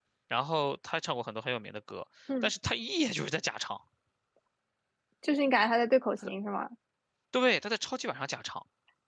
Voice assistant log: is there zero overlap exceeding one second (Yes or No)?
Yes